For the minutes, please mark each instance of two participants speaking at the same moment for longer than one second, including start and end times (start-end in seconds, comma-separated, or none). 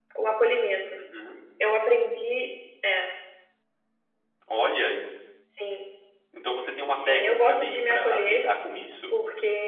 6.9-8.5